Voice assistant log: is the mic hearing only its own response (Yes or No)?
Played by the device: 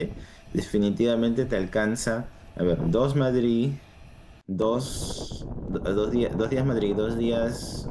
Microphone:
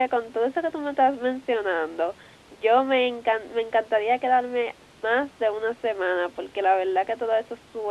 No